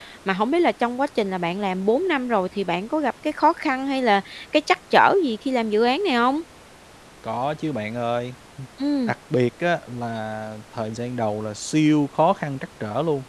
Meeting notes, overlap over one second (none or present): none